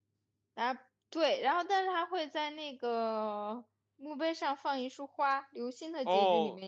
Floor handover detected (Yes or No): Yes